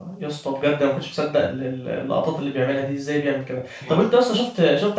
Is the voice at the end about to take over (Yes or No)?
No